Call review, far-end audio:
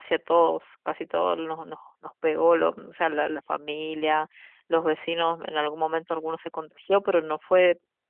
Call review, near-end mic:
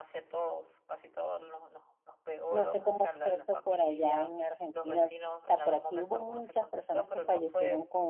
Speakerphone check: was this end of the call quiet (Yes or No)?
No